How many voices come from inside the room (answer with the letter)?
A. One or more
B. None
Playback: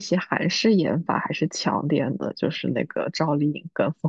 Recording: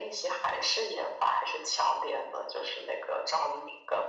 B